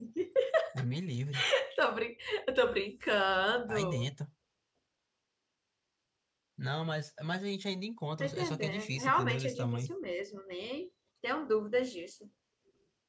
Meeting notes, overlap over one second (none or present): present